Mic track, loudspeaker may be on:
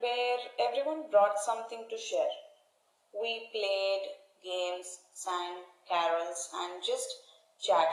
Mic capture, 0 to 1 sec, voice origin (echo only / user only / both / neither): echo only